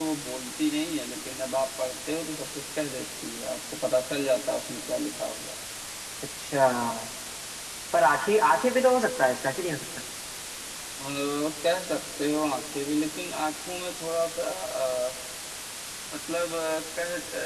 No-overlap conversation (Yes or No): Yes